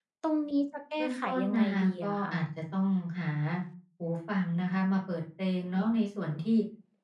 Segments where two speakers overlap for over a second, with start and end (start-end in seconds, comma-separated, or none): 1.0-2.3